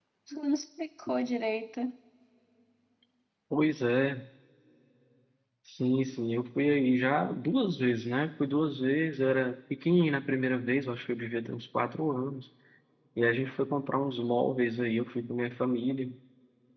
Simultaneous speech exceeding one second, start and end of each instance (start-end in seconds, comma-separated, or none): none